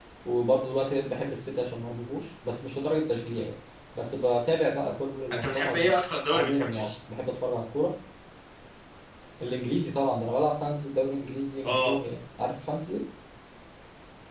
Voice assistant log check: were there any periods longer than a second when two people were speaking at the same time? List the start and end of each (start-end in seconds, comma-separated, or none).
5.3-6.9